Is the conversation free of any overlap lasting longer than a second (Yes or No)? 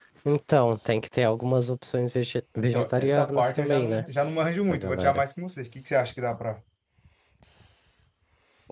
No